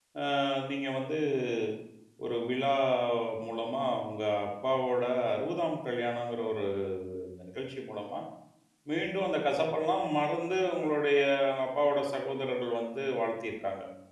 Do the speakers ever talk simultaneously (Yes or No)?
No